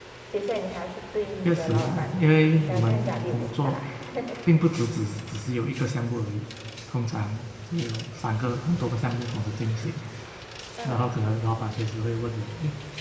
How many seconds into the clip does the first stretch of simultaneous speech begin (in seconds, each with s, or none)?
1.4 s